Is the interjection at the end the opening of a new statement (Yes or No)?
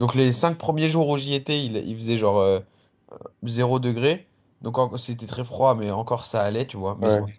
No